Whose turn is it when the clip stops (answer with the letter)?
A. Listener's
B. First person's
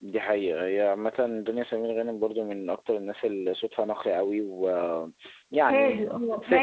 A